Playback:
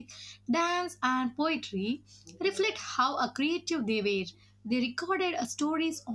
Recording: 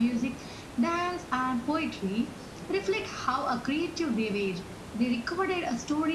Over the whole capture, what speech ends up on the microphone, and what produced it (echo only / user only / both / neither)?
echo only